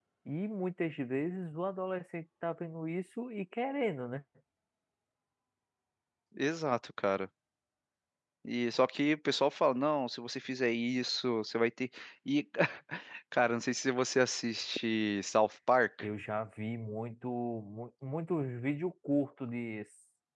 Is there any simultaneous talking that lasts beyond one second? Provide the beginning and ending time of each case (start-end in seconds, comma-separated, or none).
none